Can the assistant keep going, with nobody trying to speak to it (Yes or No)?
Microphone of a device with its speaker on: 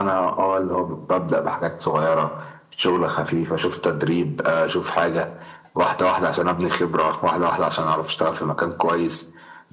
Yes